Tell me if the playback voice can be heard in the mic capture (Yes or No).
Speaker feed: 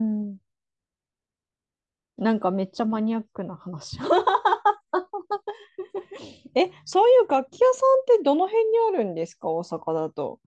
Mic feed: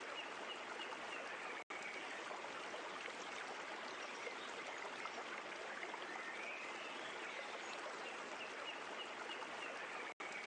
No